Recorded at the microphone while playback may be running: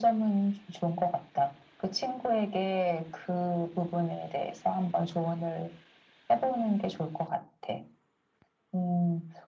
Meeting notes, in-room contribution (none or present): none